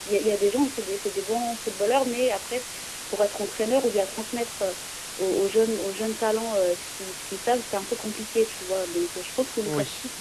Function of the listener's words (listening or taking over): listening